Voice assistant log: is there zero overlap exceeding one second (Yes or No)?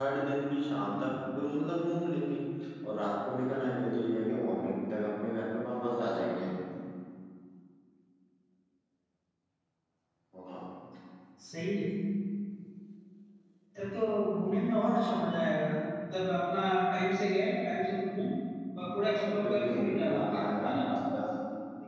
No